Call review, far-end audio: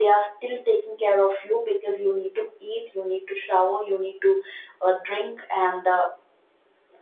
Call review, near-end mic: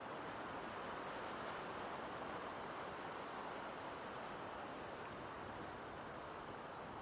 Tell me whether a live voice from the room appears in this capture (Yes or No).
No